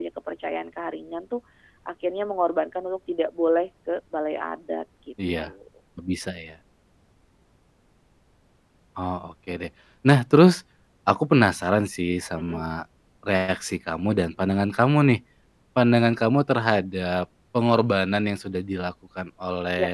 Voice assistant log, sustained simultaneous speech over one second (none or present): none